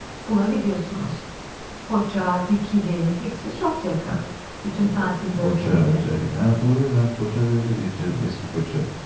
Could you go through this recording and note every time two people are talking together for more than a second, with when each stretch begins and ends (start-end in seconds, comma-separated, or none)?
4.7-6.0